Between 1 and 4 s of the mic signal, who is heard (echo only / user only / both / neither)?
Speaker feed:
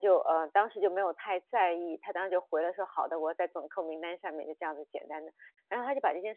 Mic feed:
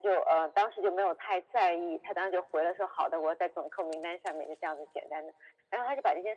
echo only